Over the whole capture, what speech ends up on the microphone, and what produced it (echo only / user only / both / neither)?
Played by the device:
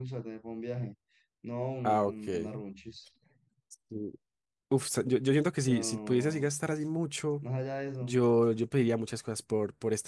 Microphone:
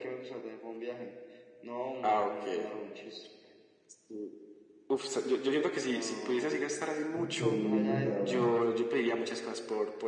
both